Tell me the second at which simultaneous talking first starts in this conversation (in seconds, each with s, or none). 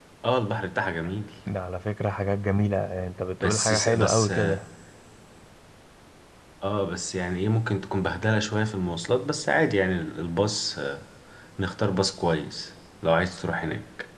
3.4 s